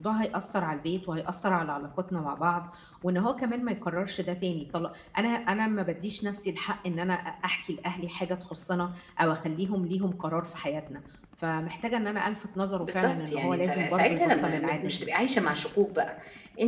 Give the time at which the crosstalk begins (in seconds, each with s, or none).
12.8 s